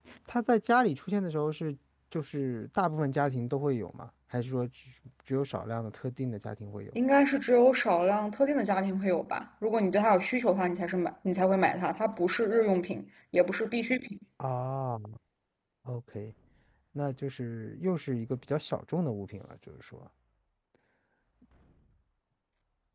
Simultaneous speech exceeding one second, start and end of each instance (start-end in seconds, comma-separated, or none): none